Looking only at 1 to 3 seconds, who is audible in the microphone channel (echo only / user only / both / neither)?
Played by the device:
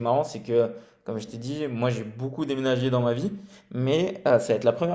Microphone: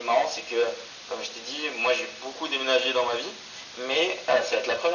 echo only